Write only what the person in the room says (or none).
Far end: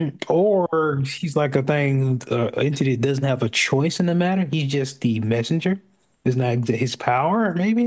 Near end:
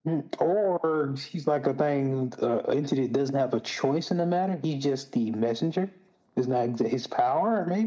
none